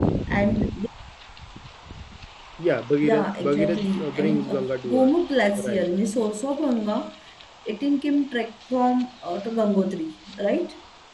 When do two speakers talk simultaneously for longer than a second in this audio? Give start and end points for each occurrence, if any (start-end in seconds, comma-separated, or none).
3.0-5.1